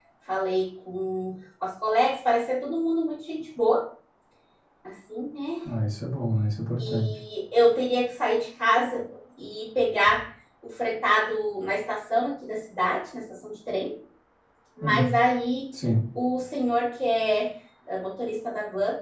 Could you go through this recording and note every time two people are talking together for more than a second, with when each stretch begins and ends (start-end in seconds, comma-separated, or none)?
none